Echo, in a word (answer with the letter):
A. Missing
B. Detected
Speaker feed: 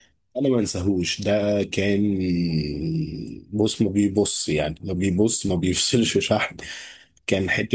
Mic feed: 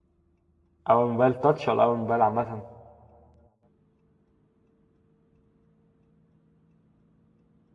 A